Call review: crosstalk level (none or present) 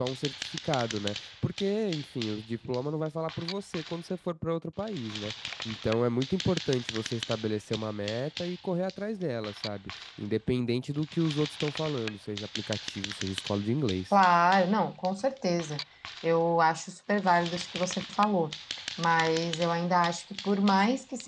none